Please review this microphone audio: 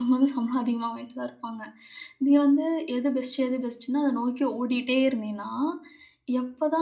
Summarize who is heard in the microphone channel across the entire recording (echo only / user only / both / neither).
user only